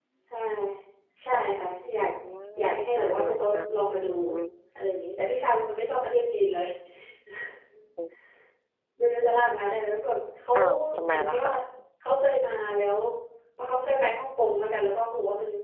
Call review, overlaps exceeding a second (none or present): present